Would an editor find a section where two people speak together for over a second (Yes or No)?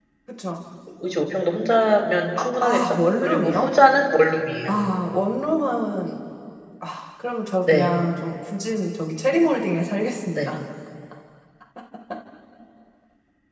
Yes